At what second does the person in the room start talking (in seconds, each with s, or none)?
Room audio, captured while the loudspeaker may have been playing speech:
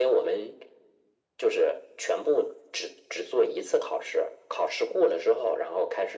none